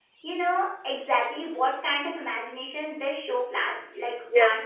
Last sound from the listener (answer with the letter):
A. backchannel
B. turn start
B